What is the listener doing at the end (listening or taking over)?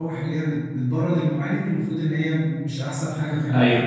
taking over